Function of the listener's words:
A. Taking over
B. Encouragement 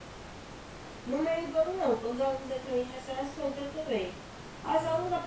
B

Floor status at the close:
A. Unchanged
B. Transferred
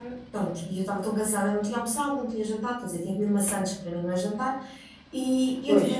A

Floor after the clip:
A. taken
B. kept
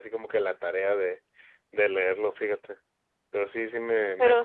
A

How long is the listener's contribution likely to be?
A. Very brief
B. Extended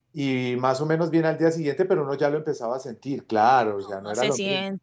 B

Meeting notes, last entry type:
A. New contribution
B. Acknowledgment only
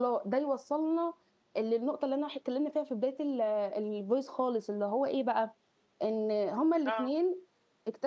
B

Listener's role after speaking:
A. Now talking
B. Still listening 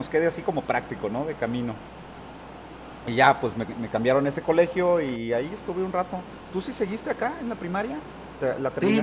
A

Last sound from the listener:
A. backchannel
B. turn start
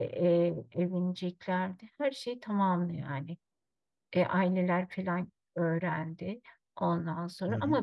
A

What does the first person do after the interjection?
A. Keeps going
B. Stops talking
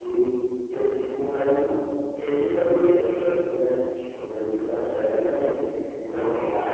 A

